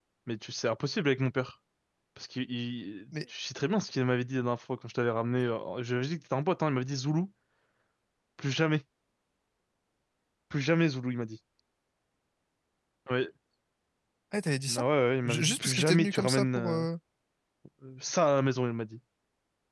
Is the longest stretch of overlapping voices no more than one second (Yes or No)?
No